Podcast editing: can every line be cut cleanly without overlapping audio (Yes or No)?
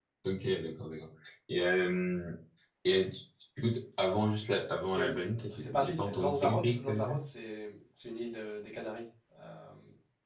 No